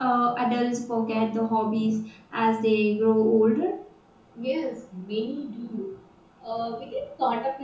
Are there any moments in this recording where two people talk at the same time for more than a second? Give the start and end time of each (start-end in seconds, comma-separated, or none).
none